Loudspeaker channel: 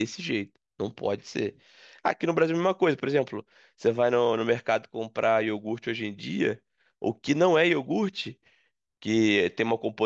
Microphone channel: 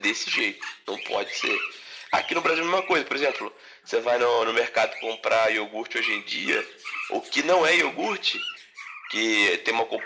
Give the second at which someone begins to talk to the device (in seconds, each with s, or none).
none